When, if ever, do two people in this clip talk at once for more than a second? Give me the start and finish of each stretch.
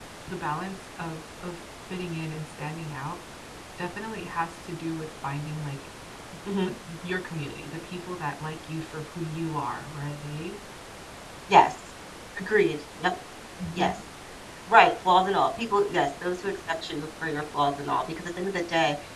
none

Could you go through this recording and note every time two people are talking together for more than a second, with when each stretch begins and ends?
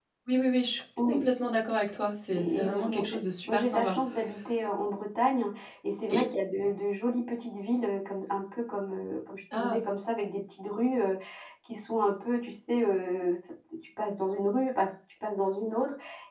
2.4-4.0

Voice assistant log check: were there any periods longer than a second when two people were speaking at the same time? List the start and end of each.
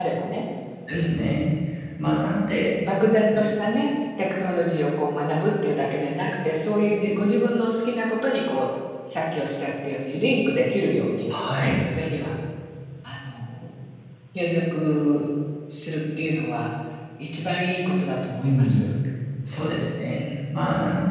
none

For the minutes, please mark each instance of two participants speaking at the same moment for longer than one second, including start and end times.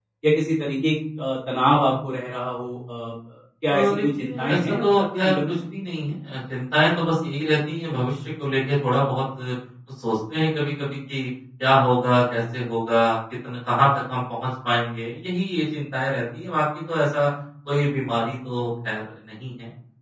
3.7-5.6

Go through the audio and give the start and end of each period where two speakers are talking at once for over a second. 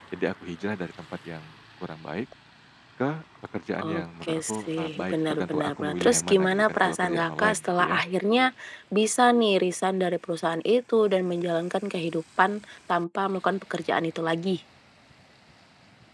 3.9-8.0

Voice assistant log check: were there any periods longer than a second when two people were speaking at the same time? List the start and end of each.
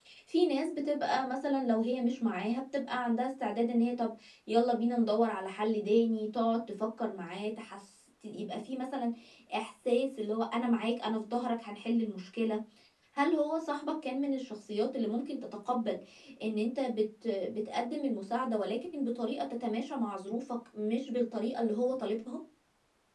none

